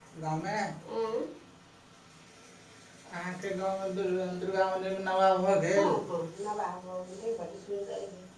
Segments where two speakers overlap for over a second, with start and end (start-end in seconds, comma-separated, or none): none